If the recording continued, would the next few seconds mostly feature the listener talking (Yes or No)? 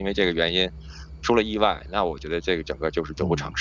Yes